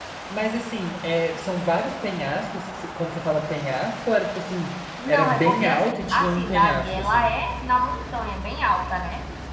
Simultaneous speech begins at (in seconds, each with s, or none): 5.1 s